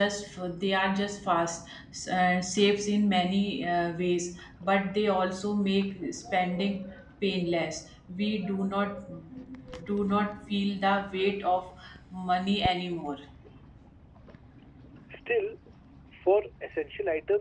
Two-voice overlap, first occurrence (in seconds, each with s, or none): none